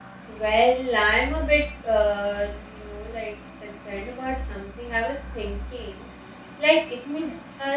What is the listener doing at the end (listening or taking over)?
listening